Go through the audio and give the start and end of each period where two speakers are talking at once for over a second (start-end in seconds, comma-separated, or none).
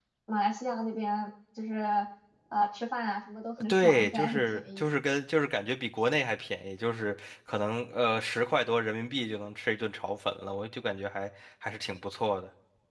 3.7-4.9